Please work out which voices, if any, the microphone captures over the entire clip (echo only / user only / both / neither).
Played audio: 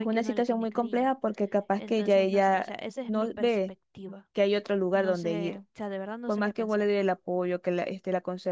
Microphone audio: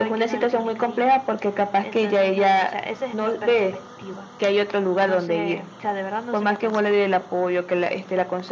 echo only